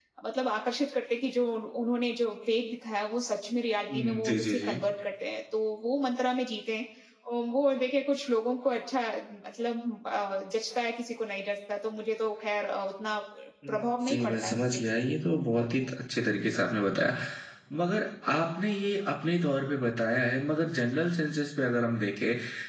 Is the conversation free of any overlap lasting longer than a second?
No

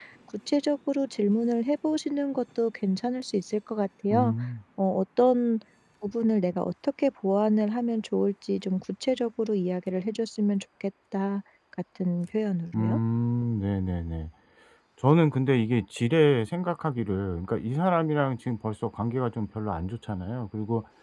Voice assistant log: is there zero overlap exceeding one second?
Yes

